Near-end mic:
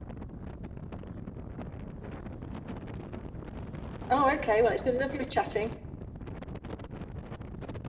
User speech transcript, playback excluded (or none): Oh, okay. Well, it's been lovely chatting.